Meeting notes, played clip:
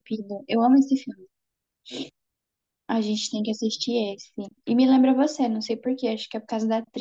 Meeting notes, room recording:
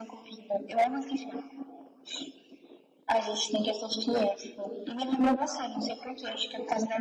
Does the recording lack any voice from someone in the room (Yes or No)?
Yes